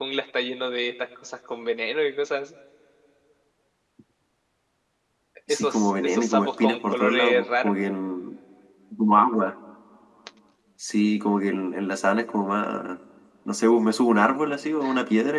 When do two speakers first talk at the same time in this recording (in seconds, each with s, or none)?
5.5 s